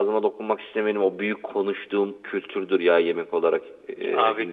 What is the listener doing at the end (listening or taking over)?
taking over